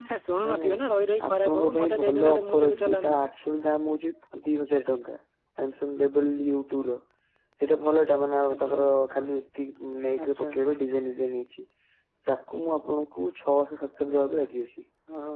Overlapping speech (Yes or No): Yes